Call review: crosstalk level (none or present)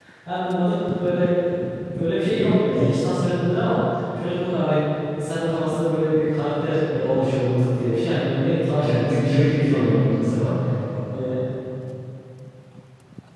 present